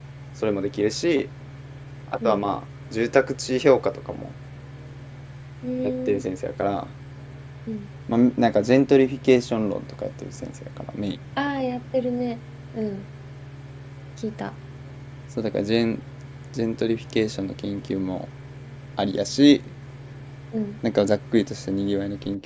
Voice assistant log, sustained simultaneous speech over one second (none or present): none